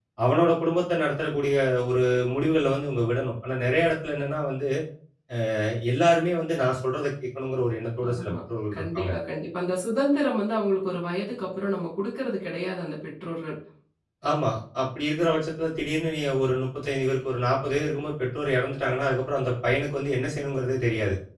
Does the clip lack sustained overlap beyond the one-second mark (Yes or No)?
Yes